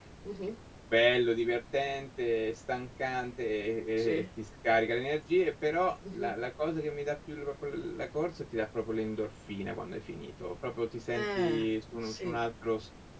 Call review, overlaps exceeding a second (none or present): none